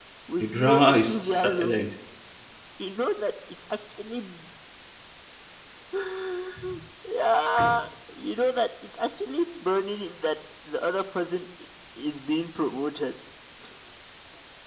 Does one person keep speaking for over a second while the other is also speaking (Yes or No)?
Yes